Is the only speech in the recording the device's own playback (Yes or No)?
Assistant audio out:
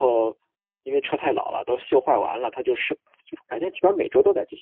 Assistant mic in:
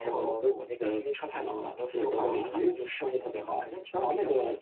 No